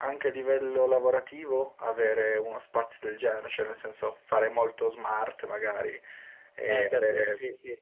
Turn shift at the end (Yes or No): Yes